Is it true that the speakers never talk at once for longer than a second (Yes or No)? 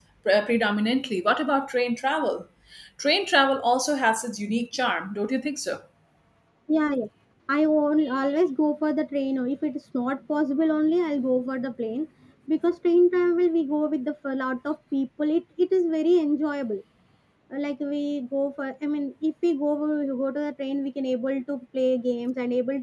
Yes